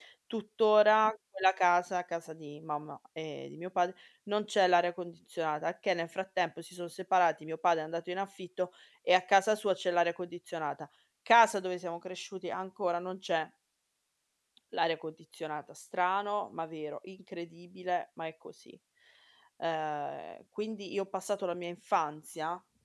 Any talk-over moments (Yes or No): No